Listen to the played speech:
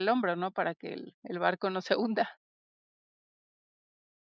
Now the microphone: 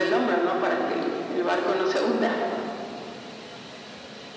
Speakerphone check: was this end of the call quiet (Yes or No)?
Yes